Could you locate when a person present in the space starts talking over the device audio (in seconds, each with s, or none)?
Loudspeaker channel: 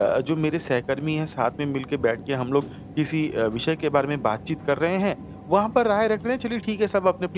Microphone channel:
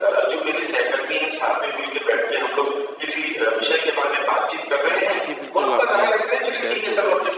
4.9 s